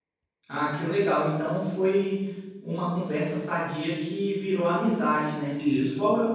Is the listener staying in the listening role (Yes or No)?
Yes